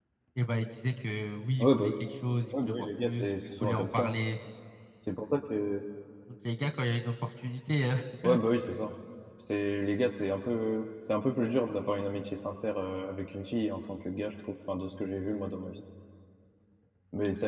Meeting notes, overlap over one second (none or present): present